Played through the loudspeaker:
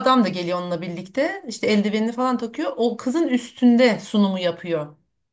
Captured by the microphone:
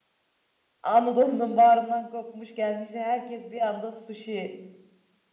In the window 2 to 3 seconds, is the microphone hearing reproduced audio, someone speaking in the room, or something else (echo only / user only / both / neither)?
user only